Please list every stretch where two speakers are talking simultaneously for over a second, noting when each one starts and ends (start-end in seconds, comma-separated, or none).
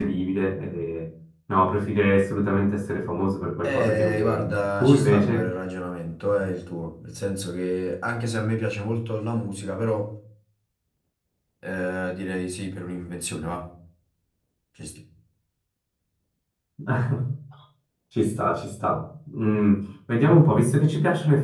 3.6-5.5